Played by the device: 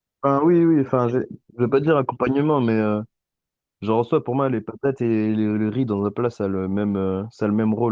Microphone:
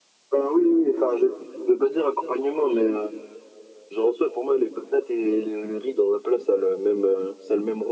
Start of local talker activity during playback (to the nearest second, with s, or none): none